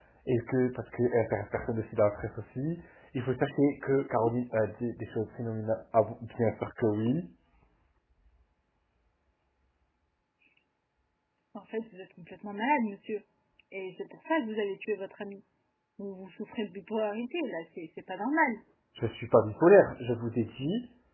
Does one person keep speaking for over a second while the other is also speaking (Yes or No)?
No